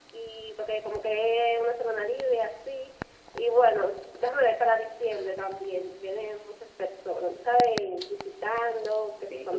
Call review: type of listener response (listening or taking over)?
taking over